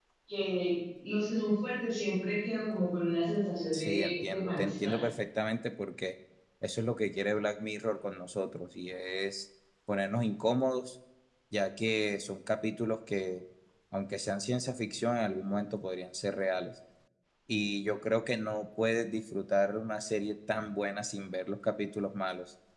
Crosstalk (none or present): present